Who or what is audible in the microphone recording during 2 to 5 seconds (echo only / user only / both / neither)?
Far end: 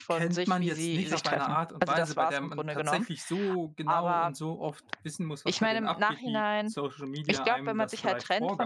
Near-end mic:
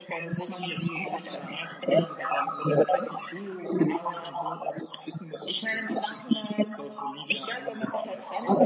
echo only